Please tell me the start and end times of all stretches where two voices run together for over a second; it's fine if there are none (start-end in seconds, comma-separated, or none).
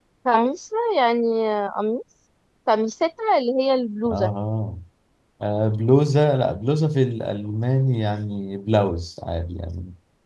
none